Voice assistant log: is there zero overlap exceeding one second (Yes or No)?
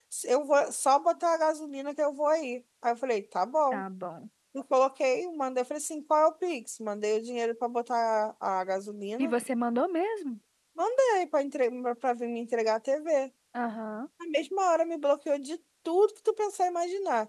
Yes